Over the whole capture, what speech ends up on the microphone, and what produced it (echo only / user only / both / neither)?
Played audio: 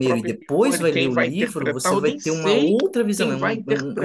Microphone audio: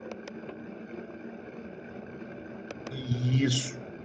user only